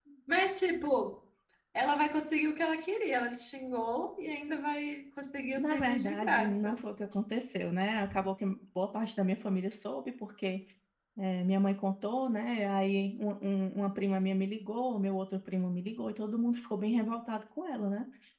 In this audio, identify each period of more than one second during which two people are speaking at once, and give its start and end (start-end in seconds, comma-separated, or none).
5.5-6.8